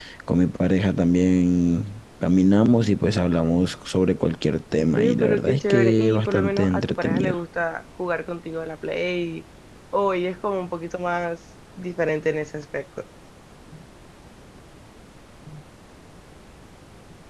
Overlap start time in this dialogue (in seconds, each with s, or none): 5.0 s